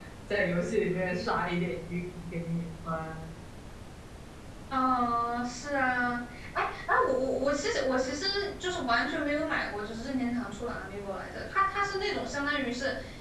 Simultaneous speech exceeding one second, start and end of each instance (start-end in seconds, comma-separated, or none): none